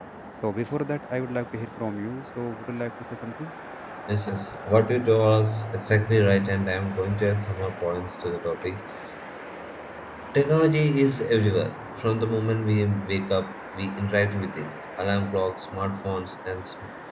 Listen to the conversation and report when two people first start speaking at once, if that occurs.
none

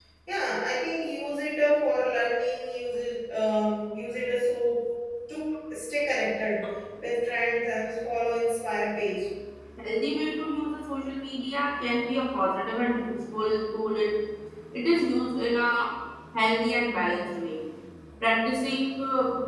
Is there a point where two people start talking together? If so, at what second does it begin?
none

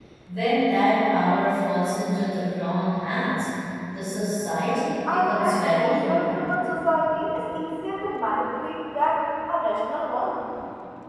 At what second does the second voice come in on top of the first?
5.1 s

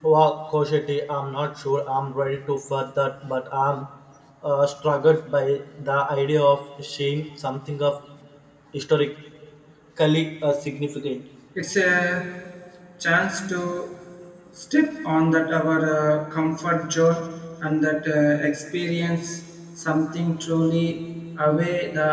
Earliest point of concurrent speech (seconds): none

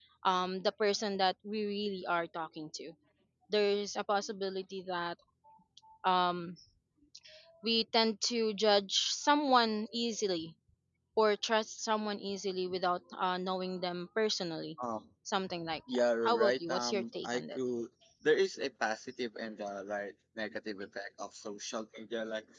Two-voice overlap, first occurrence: 15.9 s

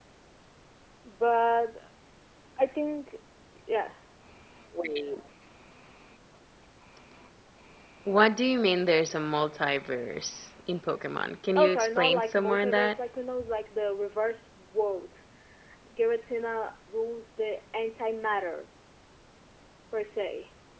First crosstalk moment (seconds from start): 11.6 s

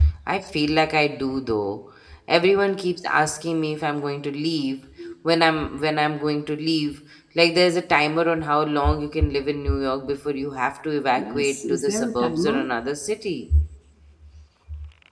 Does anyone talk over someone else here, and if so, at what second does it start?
11.2 s

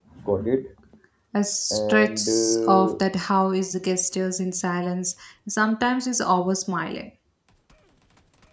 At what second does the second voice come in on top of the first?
1.7 s

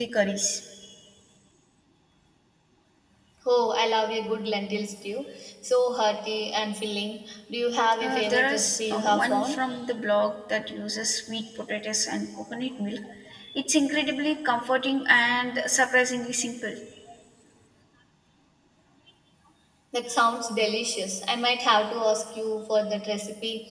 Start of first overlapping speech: 8.0 s

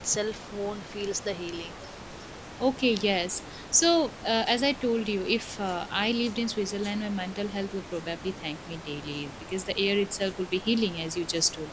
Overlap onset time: none

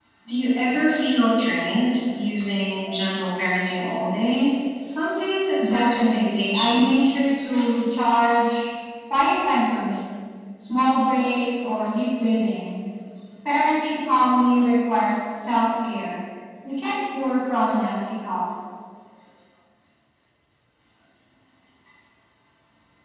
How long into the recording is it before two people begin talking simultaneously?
5.6 s

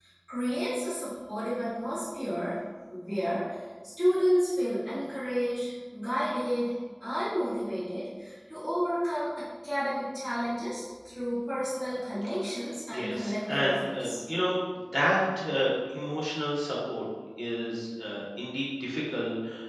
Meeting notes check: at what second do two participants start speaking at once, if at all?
12.9 s

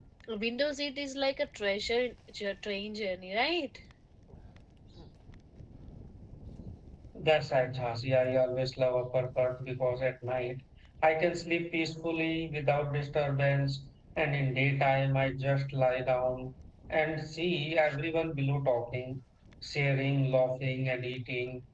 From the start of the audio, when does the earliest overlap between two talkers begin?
none

